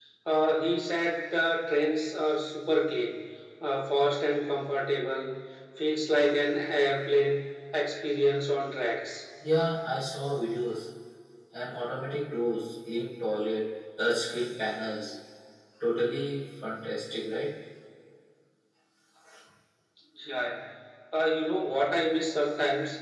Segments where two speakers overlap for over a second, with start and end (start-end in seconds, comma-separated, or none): none